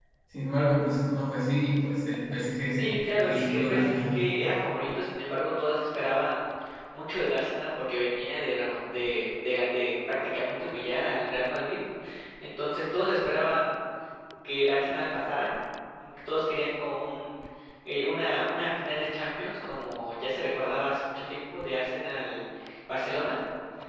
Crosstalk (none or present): present